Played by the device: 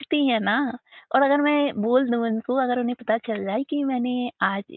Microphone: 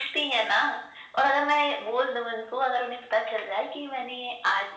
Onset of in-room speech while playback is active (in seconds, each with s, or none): none